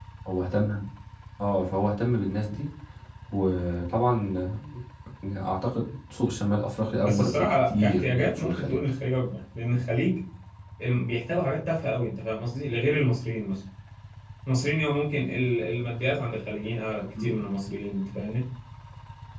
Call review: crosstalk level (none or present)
present